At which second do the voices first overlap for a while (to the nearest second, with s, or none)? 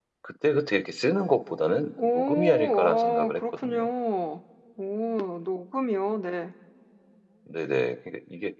2 s